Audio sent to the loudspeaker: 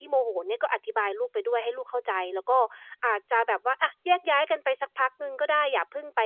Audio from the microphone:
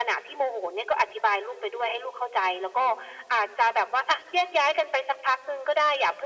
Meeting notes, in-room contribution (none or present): none